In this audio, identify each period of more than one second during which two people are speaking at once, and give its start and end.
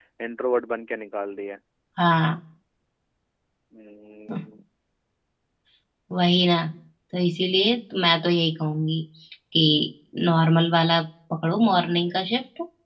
none

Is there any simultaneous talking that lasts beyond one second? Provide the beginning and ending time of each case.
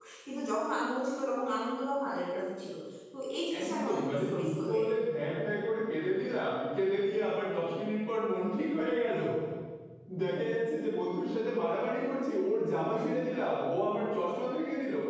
3.6-4.8

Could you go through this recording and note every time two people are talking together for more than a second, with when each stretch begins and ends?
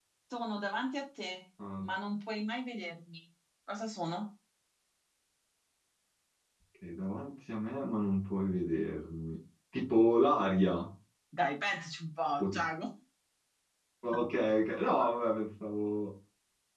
none

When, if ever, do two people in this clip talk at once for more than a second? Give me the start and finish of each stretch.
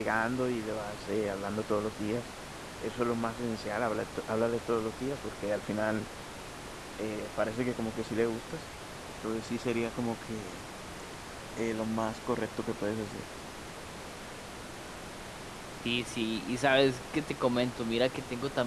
none

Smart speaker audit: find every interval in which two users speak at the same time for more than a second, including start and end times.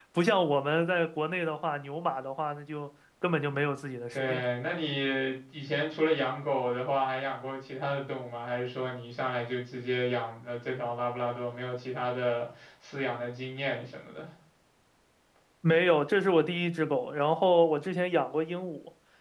none

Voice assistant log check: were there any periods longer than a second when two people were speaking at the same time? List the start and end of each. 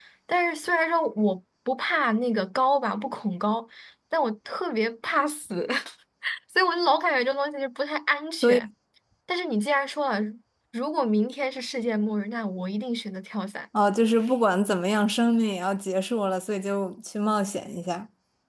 none

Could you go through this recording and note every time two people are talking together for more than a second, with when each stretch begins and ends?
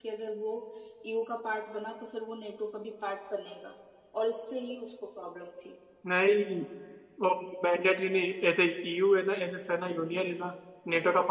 none

